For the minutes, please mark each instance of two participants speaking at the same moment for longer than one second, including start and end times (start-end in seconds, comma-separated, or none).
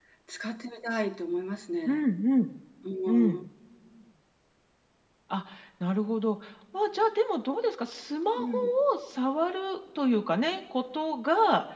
none